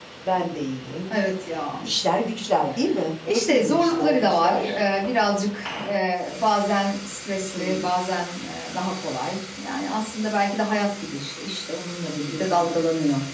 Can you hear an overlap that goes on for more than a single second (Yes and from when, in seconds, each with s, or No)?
Yes, from 3.3 s